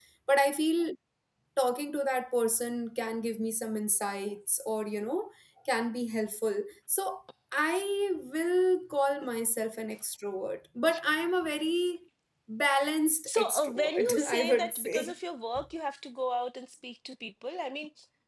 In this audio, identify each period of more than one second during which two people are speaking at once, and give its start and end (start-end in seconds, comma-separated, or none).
13.3-15.1